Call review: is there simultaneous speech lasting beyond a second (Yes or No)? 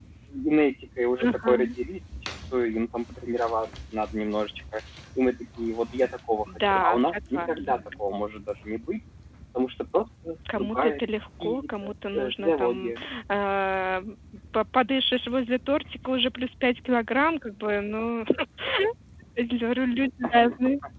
Yes